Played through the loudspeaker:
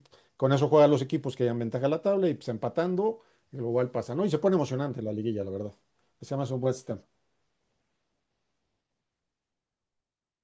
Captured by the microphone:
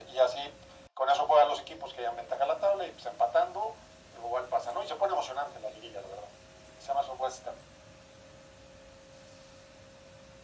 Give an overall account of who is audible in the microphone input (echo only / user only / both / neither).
echo only